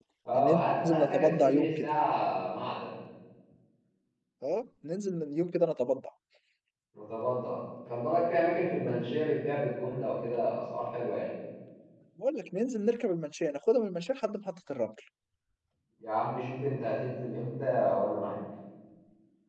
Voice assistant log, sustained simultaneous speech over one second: present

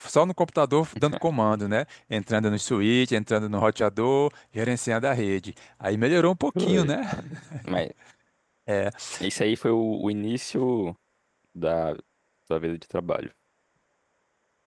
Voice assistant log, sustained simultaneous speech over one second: none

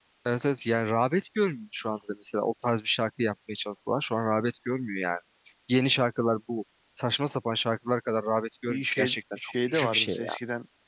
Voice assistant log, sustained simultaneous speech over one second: present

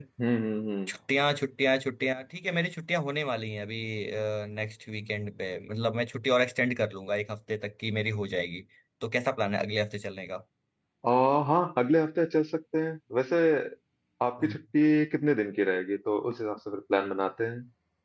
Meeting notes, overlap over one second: none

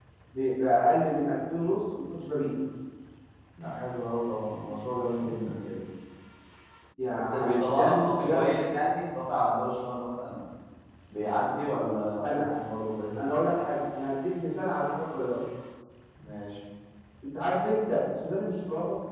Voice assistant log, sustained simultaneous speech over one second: present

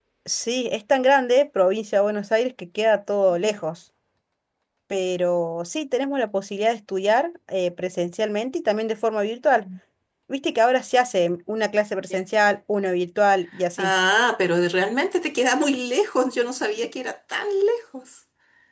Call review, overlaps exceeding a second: none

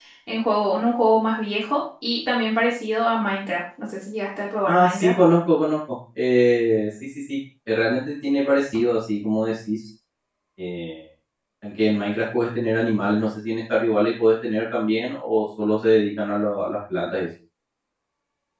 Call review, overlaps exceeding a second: none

